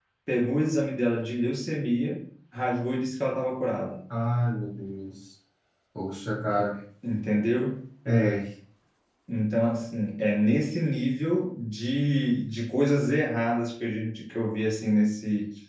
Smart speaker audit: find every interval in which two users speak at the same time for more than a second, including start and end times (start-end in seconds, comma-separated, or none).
none